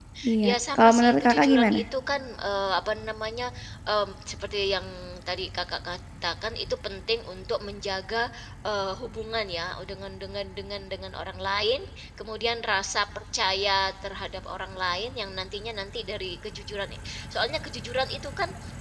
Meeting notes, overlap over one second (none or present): present